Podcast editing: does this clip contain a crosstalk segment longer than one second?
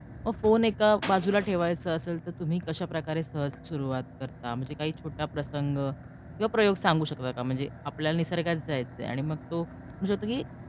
No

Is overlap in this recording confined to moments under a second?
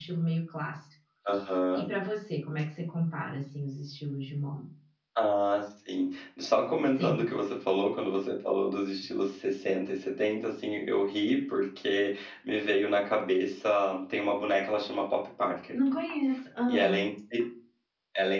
Yes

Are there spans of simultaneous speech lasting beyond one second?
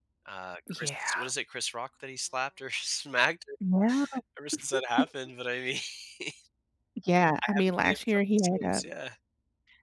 Yes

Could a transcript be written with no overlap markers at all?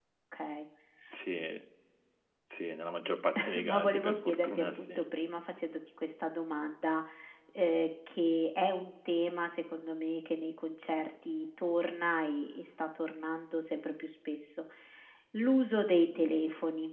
No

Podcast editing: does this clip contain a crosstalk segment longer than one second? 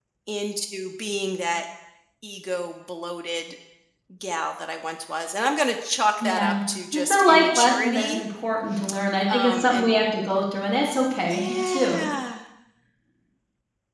Yes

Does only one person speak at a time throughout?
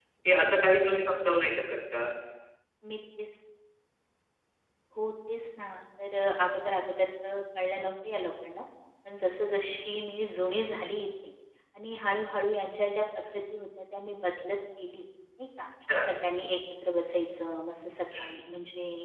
Yes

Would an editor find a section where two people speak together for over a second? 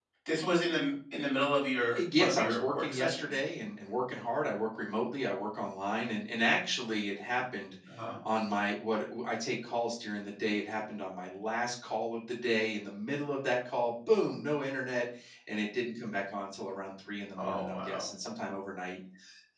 Yes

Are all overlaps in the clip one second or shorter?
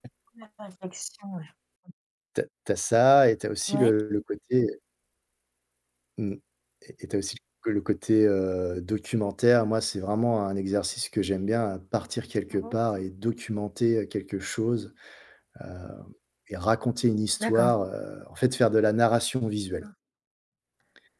Yes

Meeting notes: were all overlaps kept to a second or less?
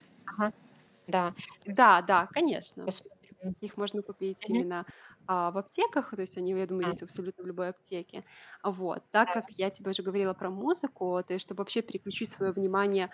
Yes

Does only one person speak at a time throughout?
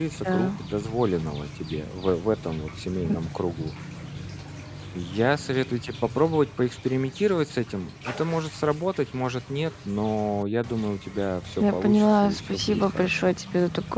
No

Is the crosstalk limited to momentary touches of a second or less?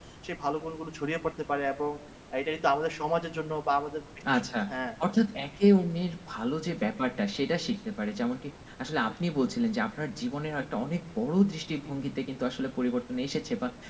Yes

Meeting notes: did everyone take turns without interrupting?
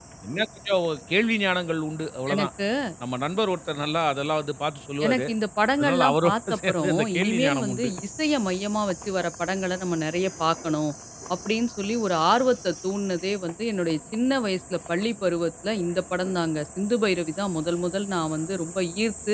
No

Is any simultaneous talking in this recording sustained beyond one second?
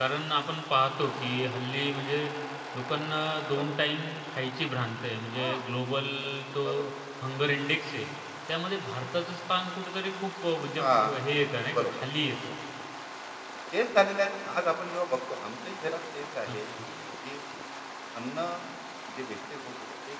No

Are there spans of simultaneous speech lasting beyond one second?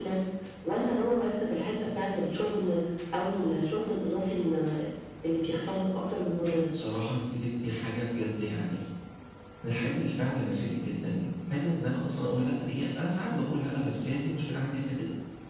No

